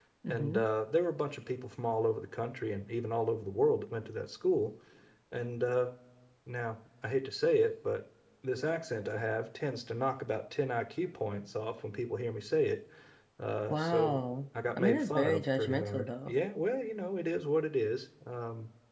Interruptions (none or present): present